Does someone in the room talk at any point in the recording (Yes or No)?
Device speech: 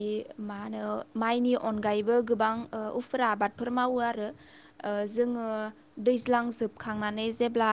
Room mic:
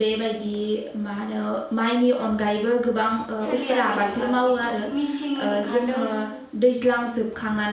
Yes